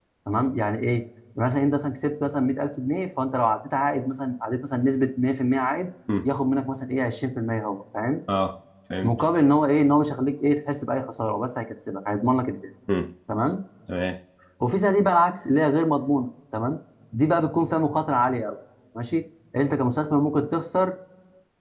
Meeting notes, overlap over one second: none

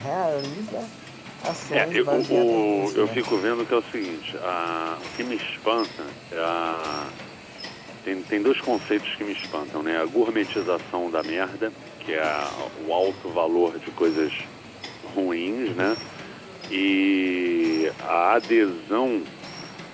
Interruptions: present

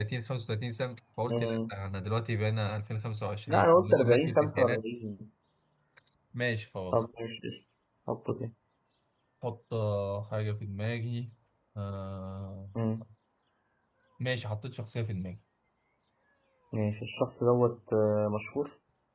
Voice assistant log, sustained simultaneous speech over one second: present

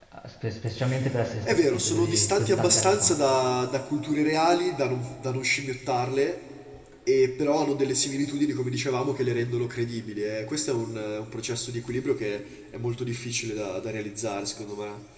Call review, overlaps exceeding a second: present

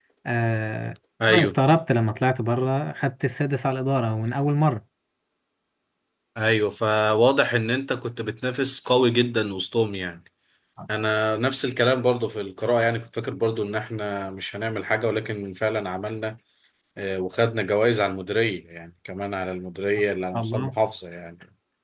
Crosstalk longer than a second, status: none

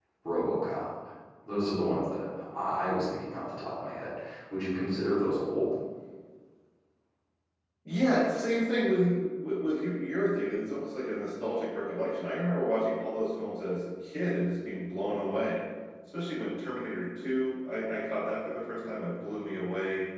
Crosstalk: none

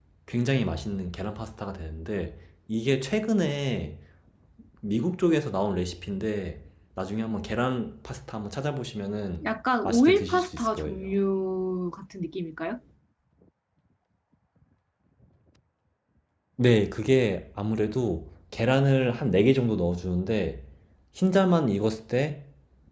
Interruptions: present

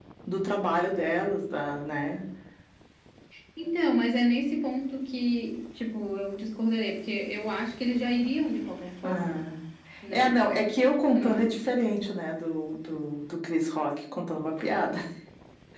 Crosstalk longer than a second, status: none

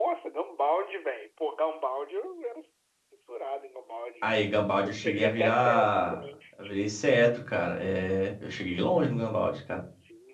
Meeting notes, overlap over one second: present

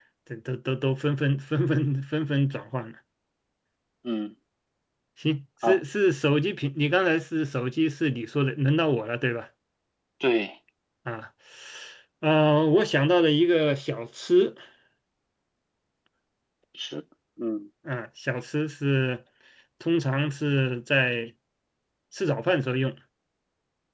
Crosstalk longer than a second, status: none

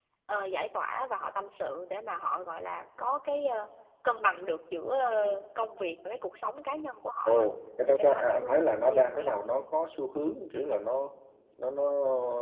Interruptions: present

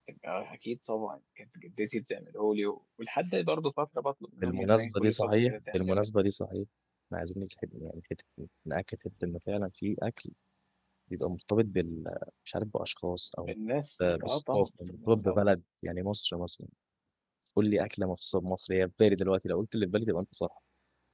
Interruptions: present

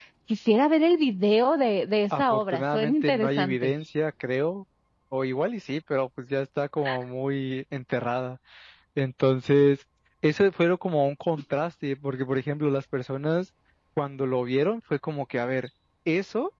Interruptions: present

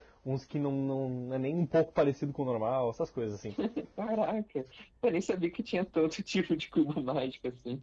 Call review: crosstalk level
none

